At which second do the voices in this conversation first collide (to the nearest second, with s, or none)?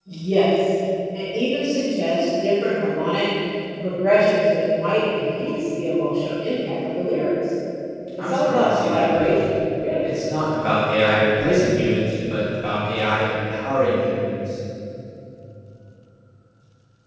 8 s